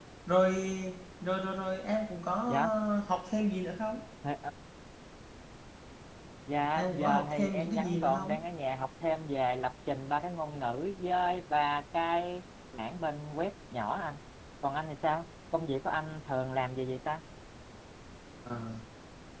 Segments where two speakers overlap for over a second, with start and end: 6.8-8.4

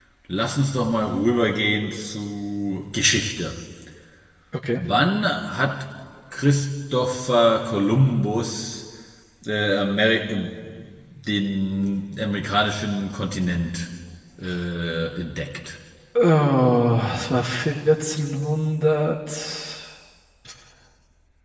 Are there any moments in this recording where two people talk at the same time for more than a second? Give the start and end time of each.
none

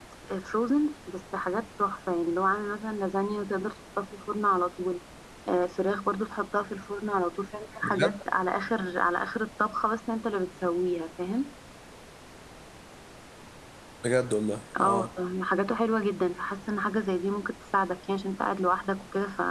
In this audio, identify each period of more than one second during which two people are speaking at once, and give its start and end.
none

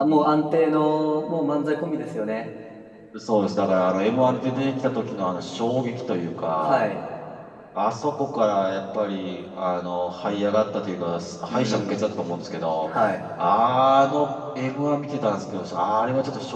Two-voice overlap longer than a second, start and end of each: none

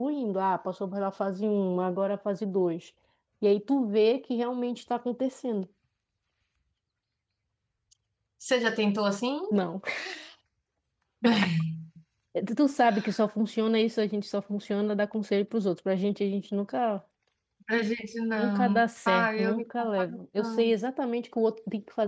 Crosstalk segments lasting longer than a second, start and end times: 18.4-20.1

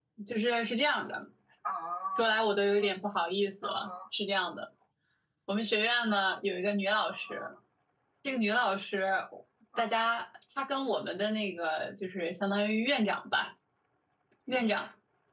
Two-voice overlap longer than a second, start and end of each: none

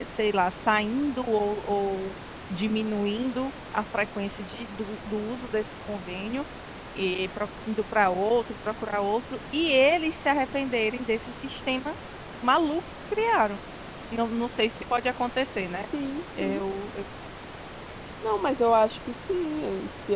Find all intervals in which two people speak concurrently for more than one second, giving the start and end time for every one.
none

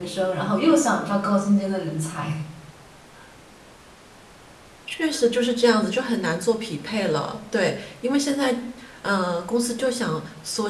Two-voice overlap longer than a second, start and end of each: none

